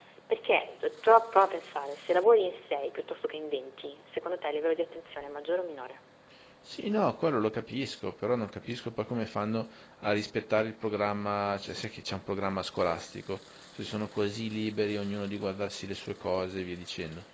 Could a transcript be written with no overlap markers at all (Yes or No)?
Yes